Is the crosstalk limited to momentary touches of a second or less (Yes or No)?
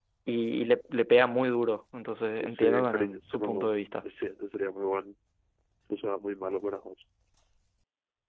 No